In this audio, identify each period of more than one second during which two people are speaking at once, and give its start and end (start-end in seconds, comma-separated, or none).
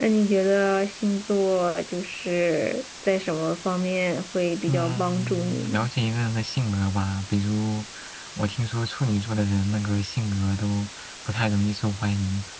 4.7-5.9